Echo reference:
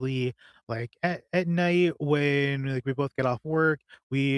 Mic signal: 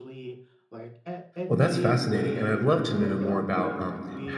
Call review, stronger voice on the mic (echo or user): user